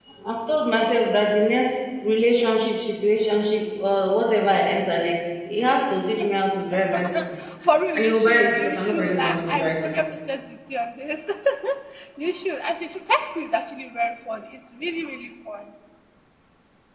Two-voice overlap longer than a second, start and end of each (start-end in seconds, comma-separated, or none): 8.0-10.0